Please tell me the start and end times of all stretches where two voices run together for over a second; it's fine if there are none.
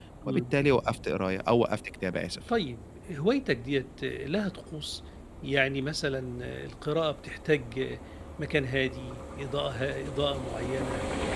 none

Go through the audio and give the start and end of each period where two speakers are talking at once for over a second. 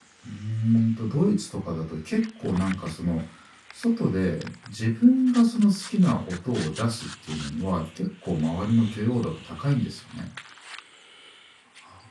none

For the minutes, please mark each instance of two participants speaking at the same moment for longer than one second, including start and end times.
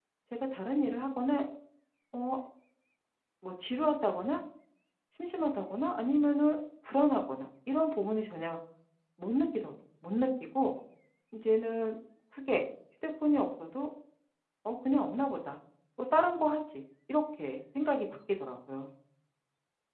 none

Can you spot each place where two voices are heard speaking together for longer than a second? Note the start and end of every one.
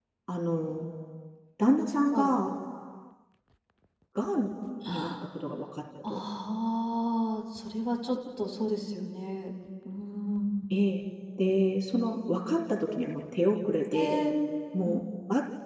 none

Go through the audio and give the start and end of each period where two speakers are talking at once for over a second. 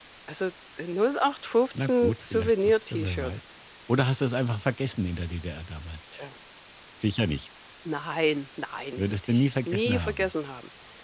1.8-3.3, 9.0-10.3

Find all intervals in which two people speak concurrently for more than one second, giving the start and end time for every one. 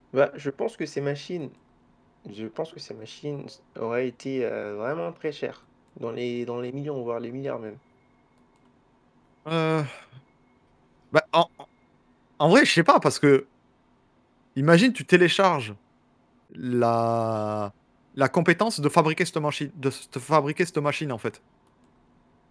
none

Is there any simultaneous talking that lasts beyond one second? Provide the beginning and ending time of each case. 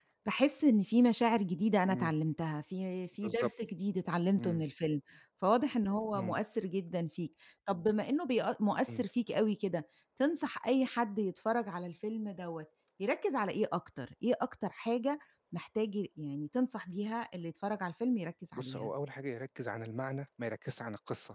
none

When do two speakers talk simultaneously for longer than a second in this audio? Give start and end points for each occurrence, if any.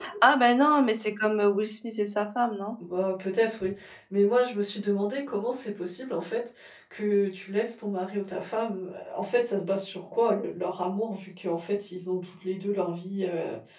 none

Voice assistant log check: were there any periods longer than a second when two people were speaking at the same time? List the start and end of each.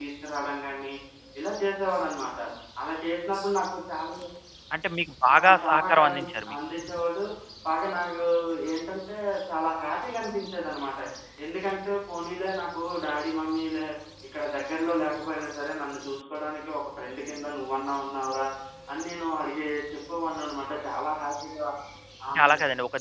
5.3-6.6

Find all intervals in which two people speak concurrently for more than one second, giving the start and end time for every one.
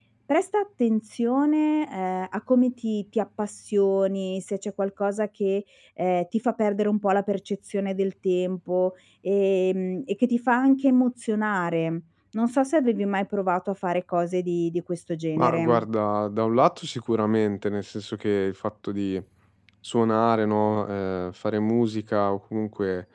none

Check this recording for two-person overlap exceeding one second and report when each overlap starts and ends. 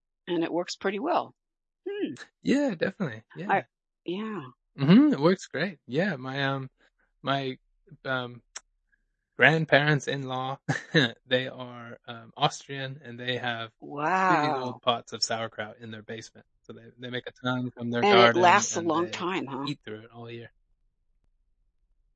18.0-19.2

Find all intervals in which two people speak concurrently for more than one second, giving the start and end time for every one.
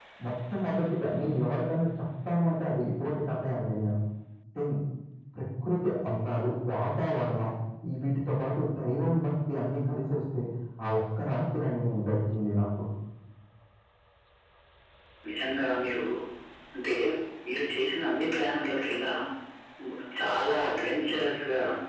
none

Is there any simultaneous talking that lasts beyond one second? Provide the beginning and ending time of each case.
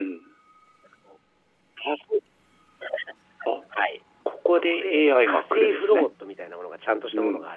4.5-6.1

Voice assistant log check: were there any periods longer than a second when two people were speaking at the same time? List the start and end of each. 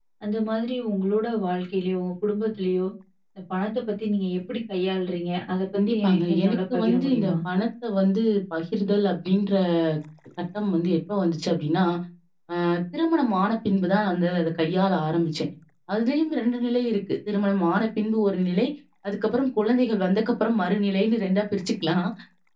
5.7-7.3

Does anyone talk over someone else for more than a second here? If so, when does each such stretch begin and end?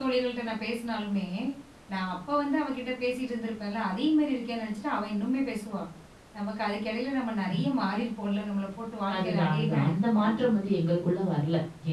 9.1-10.4

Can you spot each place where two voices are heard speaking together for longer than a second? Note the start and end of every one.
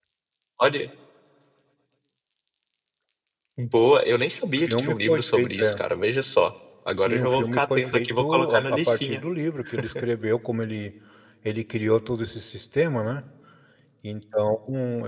4.6-5.8, 7.0-9.2

